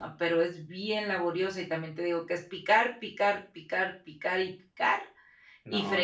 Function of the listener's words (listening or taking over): listening